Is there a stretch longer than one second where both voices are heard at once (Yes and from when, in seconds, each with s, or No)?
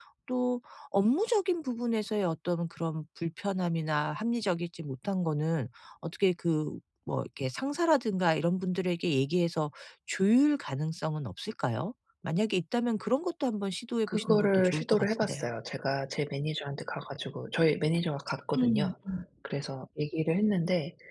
Yes, from 14.1 s